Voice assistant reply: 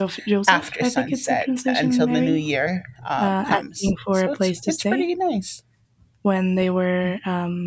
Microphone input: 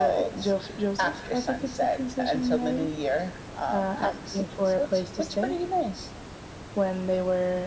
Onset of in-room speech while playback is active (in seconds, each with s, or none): none